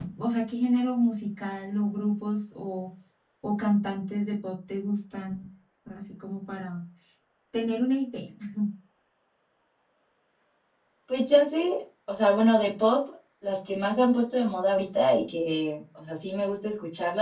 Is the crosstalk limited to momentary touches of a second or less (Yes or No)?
Yes